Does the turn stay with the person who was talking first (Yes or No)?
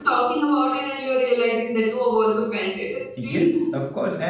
No